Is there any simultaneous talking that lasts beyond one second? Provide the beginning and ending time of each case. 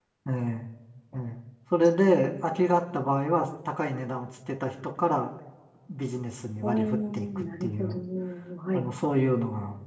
6.6-8.0

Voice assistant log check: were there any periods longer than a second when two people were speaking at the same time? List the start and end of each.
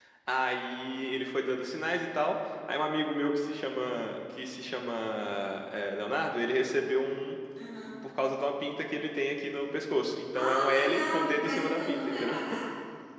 10.3-12.3

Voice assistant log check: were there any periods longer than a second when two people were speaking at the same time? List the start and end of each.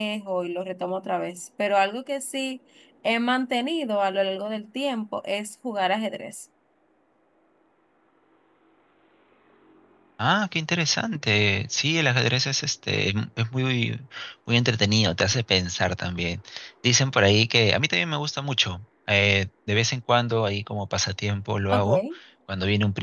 none

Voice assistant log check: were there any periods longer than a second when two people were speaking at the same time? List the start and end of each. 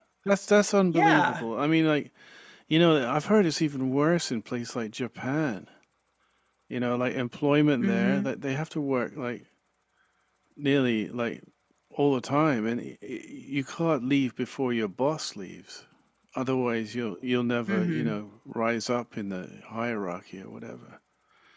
none

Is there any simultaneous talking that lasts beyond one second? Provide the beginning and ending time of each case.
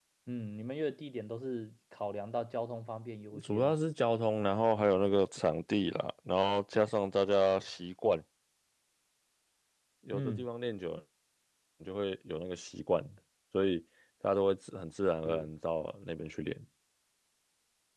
none

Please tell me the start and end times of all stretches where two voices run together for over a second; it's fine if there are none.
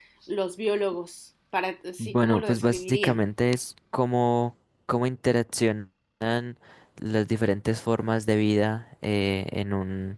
2.0-3.2

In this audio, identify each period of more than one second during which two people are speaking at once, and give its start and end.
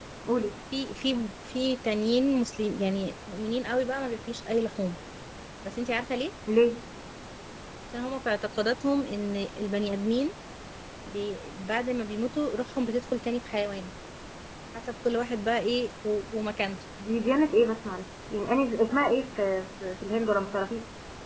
none

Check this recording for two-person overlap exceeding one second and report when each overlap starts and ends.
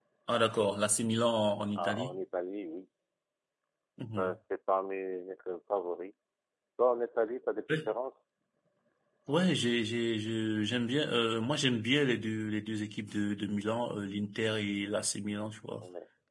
none

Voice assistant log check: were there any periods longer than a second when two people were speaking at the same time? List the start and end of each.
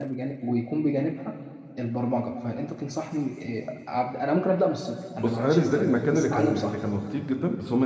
5.2-6.8

